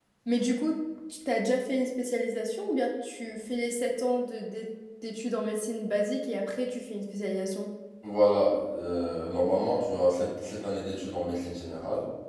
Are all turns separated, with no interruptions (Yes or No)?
Yes